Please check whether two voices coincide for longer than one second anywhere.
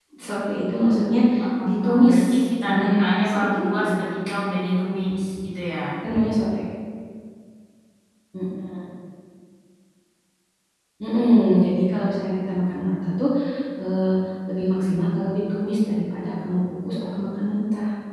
Yes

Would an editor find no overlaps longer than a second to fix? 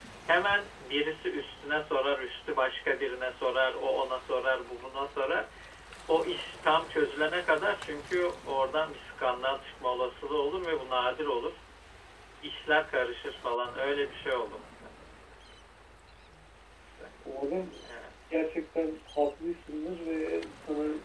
Yes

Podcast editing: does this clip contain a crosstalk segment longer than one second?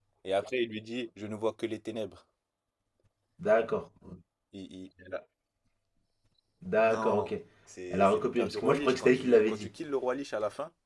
Yes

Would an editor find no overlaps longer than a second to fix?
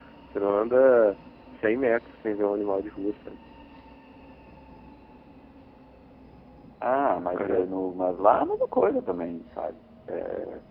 Yes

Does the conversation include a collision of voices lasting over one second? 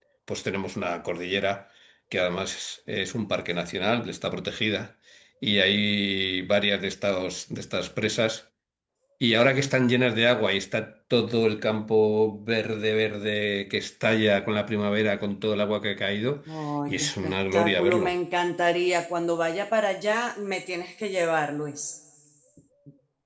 Yes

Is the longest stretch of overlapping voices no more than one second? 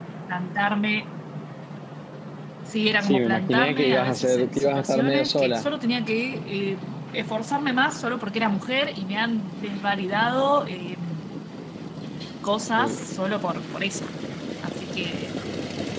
No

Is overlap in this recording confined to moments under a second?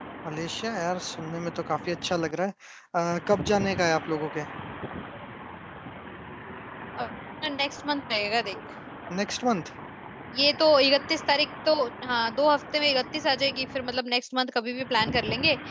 Yes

